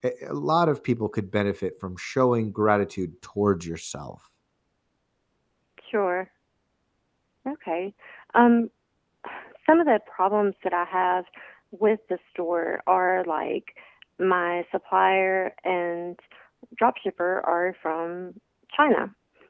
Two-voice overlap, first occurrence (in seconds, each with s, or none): none